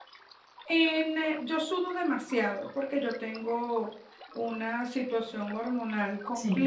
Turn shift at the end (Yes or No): No